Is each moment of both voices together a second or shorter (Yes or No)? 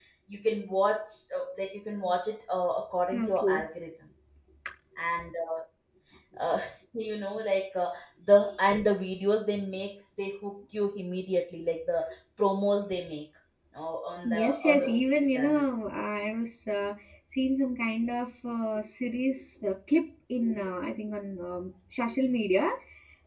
No